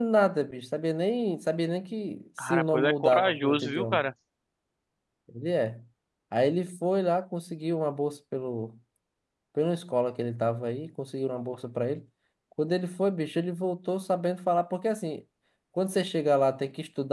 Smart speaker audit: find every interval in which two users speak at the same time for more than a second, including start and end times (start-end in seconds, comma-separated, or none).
2.4-4.0